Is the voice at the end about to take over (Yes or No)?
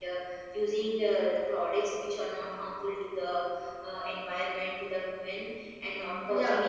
No